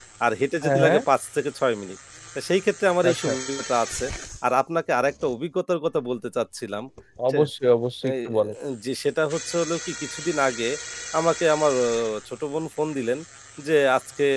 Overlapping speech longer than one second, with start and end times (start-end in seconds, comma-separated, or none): none